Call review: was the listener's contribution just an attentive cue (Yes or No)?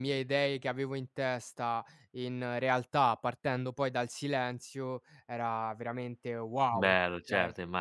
No